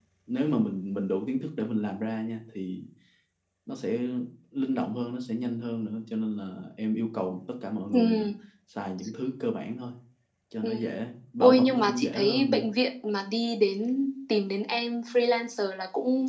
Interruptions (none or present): present